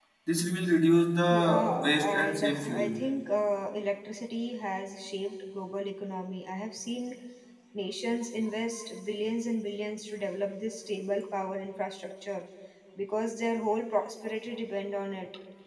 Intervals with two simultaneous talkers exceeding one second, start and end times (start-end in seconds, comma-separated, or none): 1.3-3.0